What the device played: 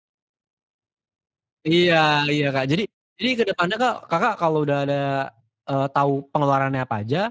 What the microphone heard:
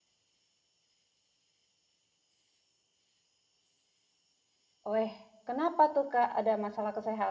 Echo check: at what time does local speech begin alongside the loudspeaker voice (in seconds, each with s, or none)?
4.9 s